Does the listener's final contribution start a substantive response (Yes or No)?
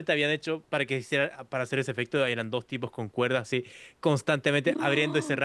No